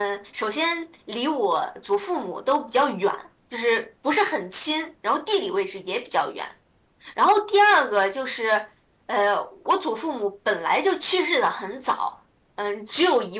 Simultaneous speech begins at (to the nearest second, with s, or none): none